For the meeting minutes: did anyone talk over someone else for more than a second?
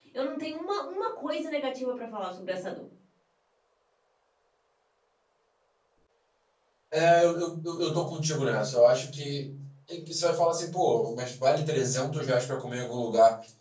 No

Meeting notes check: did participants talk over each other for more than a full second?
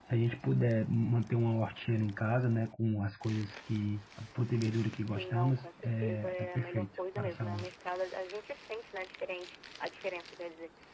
Yes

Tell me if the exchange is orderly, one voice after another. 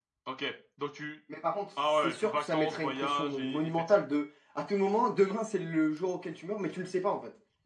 No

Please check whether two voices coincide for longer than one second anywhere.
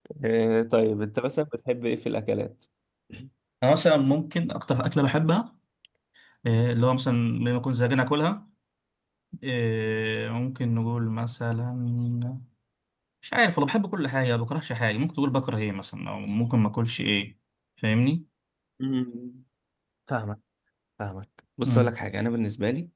No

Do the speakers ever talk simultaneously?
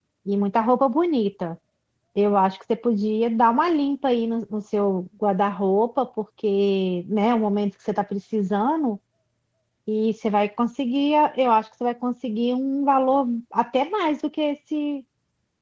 No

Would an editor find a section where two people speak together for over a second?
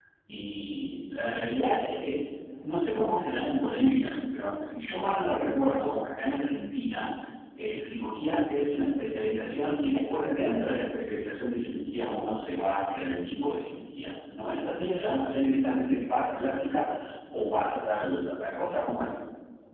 No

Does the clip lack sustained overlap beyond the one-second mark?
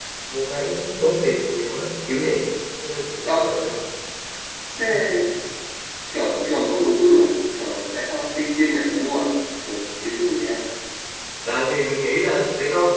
Yes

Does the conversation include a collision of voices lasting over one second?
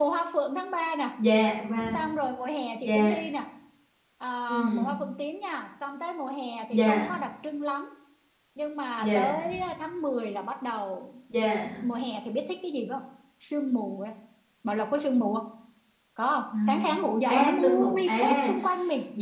Yes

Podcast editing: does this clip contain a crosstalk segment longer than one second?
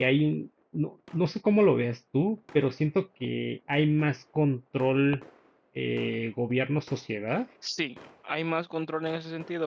No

